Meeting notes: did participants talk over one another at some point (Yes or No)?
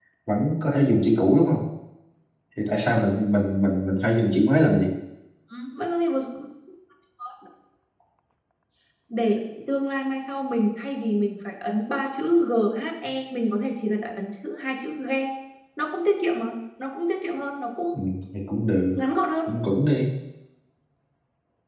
No